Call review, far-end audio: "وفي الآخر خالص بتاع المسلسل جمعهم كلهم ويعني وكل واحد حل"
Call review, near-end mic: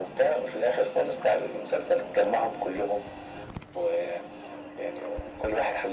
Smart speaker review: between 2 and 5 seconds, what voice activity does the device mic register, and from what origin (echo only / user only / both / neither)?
echo only